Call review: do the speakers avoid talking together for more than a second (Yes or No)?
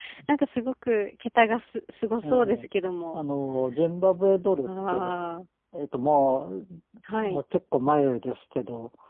Yes